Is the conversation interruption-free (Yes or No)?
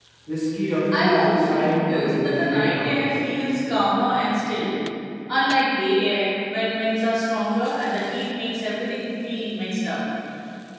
No